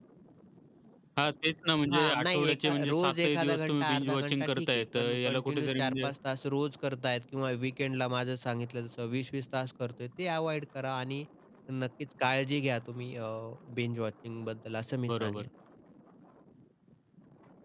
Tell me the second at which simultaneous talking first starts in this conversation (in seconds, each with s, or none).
1.9 s